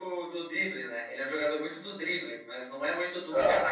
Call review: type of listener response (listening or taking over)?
listening